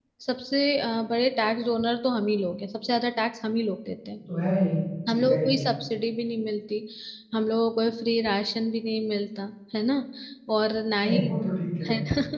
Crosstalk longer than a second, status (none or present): none